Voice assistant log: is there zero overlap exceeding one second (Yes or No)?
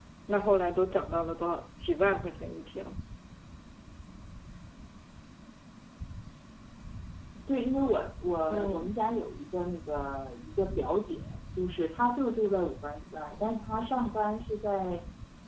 Yes